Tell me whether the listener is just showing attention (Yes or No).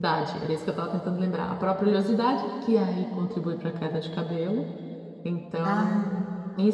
Yes